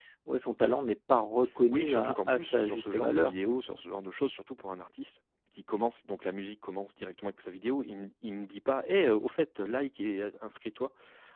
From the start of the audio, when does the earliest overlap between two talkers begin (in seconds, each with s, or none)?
1.7 s